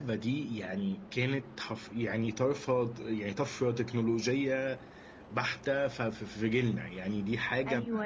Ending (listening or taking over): taking over